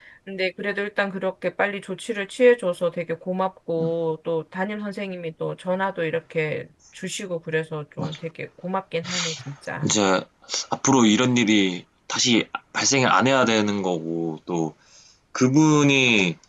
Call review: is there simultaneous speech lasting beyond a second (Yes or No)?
No